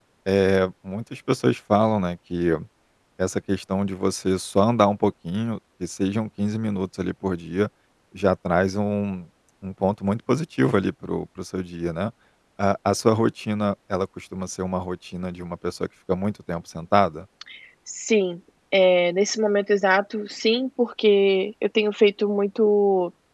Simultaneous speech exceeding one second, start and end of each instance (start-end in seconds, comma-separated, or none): none